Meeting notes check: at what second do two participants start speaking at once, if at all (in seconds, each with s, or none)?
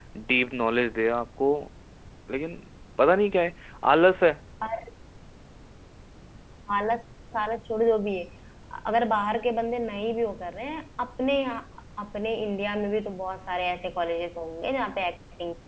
none